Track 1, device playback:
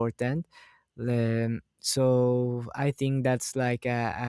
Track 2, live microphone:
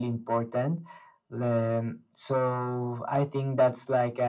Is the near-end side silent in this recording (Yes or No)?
Yes